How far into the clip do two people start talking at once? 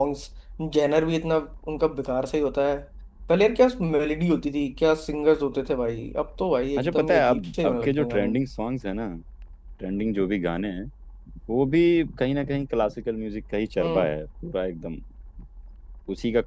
6.8 s

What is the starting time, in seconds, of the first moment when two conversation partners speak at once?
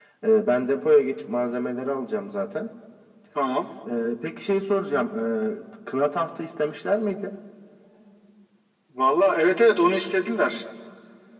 none

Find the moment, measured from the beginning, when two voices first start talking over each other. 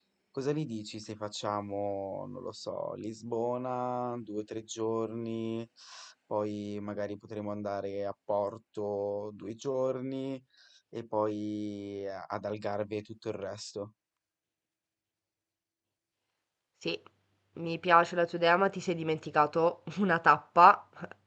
none

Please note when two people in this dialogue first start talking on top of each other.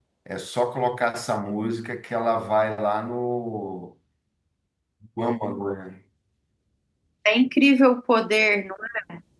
none

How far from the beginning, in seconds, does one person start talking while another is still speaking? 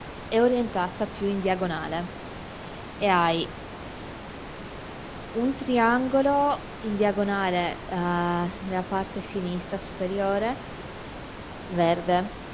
none

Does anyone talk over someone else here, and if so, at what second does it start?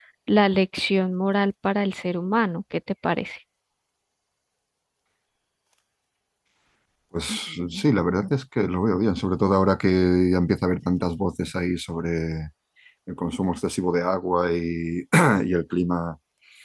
none

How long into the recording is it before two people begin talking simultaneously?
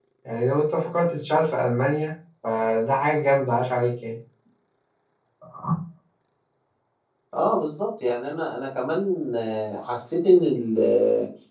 none

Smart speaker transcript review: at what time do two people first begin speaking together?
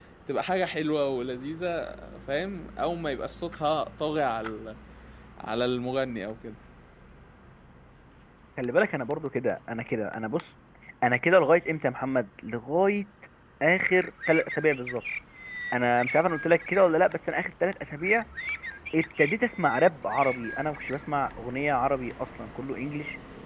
none

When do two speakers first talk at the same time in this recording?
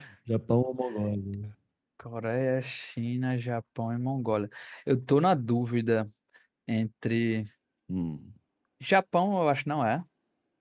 none

